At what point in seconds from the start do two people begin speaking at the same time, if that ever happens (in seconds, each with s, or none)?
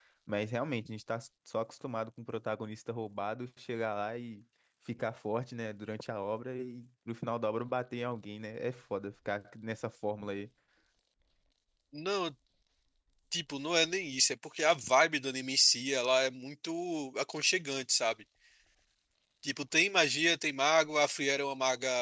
none